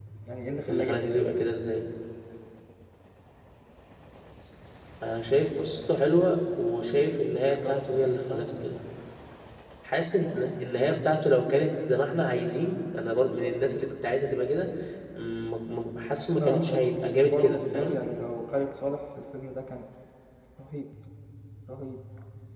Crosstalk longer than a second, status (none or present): present